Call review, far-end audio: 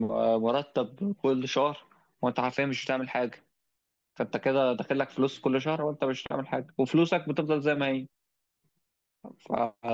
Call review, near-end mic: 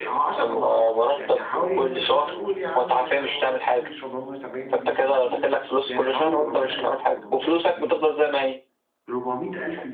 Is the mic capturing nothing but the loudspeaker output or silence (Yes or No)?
No